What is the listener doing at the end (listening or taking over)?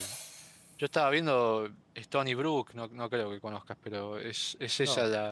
listening